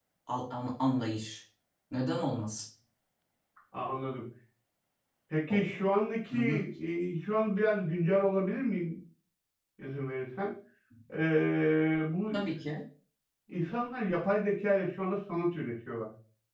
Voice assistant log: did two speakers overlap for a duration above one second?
No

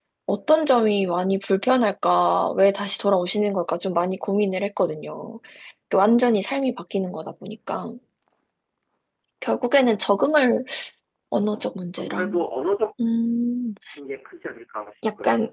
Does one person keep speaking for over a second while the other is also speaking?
No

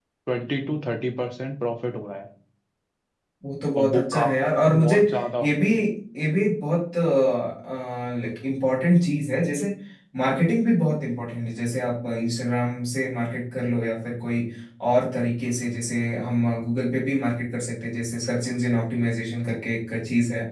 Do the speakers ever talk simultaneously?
Yes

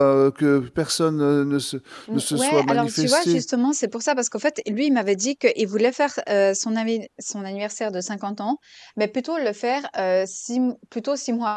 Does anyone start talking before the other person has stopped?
Yes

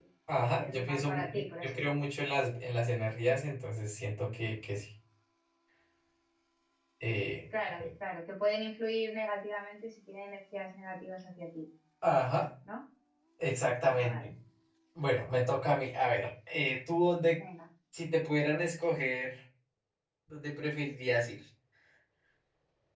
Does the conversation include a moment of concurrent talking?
Yes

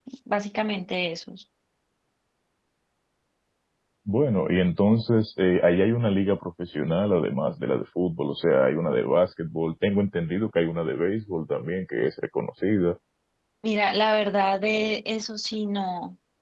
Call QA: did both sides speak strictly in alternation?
Yes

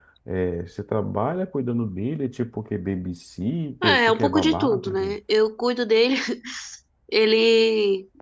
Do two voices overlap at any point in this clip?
Yes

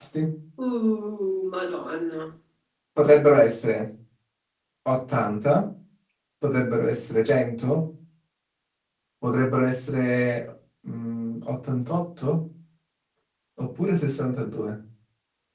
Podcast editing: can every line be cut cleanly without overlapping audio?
Yes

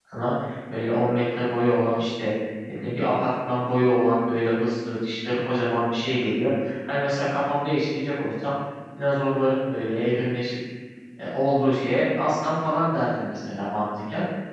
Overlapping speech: No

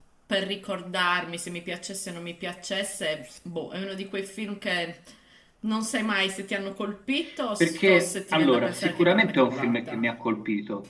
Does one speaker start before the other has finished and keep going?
Yes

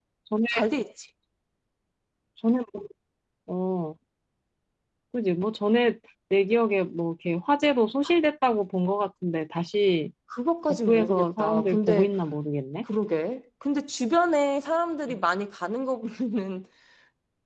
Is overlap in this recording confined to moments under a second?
No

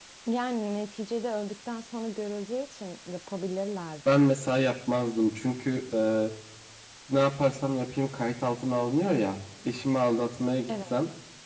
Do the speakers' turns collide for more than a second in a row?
No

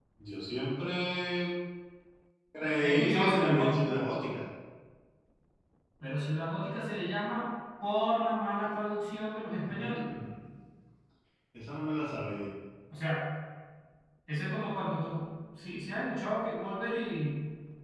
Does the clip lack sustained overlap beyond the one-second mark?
No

